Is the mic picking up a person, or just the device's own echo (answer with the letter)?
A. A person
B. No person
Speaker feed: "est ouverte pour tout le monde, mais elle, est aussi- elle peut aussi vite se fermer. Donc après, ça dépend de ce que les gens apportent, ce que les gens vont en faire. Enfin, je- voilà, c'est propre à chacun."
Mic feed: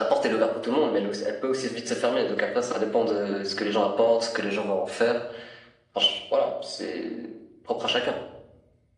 B